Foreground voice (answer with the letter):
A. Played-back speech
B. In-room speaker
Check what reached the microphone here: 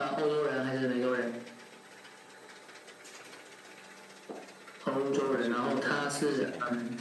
A